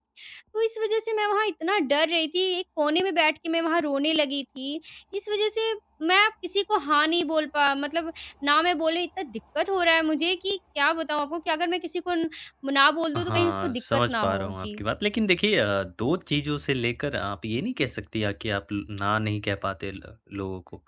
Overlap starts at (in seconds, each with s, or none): 13.2 s